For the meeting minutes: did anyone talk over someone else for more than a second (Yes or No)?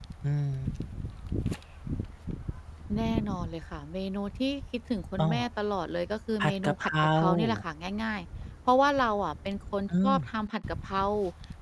Yes